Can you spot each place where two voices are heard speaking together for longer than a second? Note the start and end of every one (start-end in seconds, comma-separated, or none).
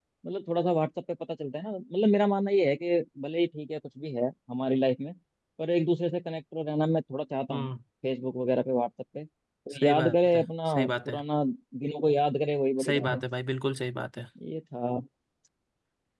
9.8-11.2